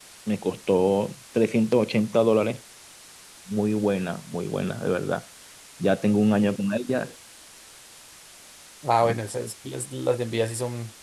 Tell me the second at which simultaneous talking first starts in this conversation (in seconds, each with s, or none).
none